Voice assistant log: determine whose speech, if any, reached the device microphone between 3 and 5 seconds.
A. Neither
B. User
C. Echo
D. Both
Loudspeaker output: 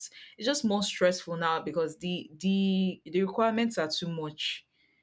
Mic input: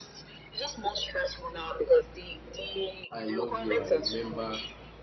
D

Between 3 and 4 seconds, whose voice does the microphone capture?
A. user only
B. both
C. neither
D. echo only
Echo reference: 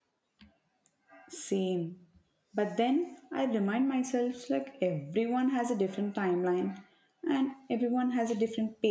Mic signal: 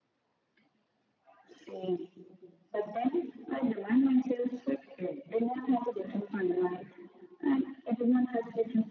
D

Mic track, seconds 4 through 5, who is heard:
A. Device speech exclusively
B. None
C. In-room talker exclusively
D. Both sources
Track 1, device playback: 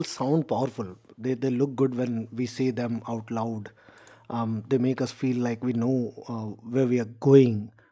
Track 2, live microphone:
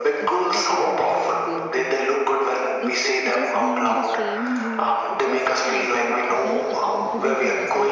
D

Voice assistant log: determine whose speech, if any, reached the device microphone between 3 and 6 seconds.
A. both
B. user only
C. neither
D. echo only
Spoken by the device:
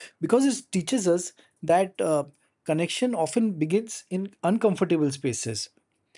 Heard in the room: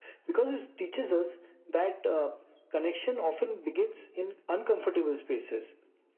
D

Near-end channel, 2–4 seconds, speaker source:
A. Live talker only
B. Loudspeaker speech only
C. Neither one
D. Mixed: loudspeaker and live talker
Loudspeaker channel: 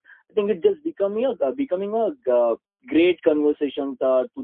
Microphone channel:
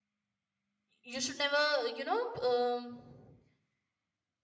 A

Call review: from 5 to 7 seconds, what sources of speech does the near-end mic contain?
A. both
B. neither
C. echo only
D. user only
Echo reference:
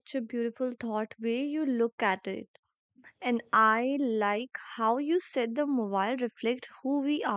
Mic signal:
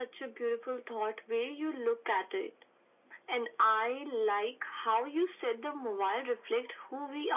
C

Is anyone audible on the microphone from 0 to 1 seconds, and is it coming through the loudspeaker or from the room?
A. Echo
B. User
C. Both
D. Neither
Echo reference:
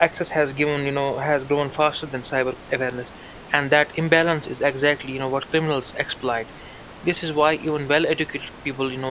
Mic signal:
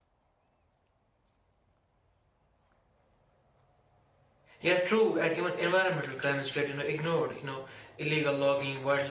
D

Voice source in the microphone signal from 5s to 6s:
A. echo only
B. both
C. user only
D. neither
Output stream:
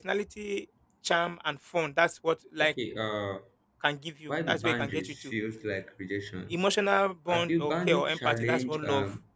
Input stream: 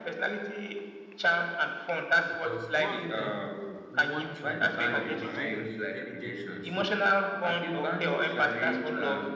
B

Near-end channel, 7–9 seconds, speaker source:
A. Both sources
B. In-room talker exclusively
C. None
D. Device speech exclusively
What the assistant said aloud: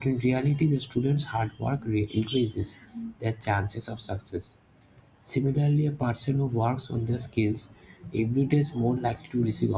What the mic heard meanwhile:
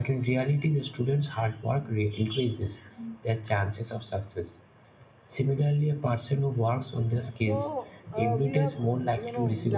A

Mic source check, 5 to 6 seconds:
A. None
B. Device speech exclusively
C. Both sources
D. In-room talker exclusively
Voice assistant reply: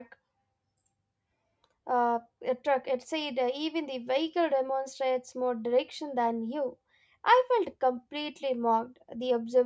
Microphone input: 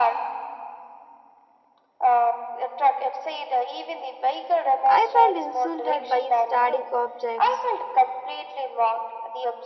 C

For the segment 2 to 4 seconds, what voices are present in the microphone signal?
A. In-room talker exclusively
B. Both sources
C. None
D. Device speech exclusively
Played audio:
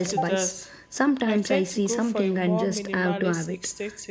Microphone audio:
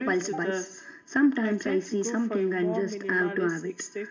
D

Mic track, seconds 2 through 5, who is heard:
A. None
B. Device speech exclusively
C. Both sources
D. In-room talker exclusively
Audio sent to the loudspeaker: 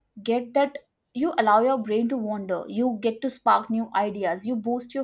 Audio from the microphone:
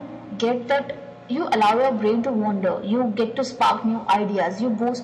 B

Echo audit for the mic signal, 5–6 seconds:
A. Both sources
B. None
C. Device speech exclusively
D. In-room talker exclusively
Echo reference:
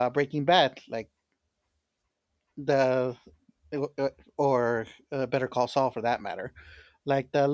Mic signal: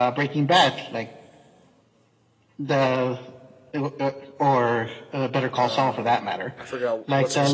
A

